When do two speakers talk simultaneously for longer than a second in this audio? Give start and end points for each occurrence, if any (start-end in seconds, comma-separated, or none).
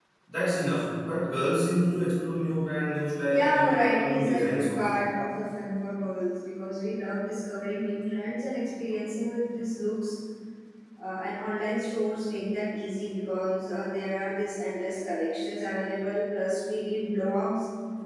3.3-5.0